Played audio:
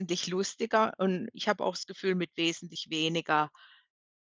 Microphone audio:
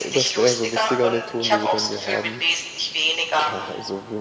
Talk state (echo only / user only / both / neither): both